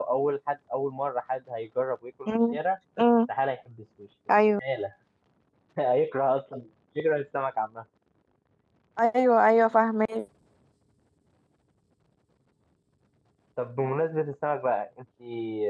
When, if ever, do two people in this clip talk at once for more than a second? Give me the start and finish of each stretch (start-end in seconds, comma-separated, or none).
none